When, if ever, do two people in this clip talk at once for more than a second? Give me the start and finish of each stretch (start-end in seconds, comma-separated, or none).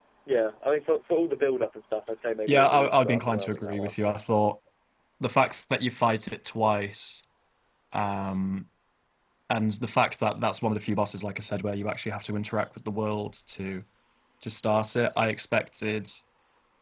2.5-3.9